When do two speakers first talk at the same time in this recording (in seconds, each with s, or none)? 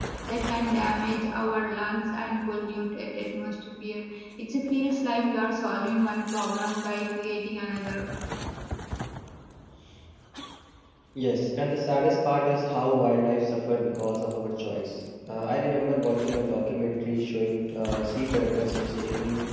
none